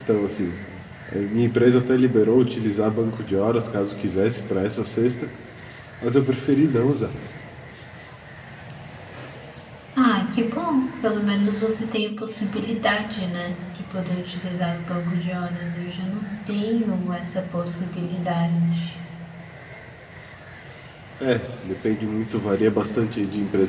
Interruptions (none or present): none